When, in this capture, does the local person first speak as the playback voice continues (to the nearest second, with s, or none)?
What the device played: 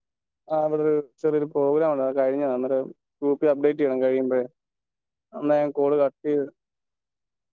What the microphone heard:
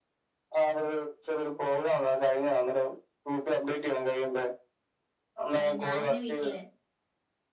6 s